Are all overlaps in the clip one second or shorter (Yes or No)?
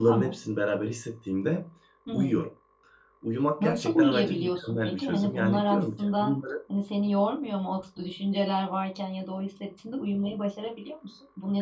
No